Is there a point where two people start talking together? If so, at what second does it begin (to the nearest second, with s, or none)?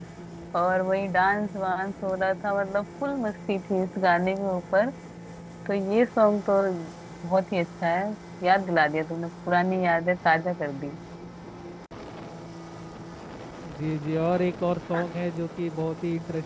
none